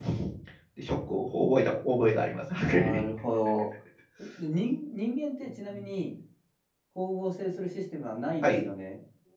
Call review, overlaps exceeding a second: none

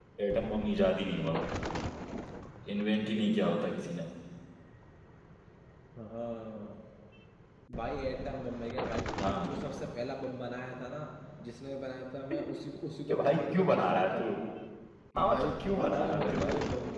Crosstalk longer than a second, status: present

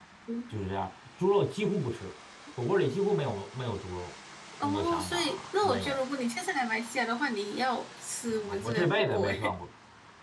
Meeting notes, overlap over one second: present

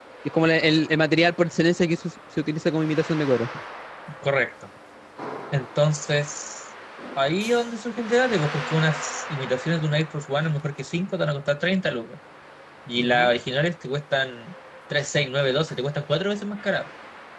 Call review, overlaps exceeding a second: none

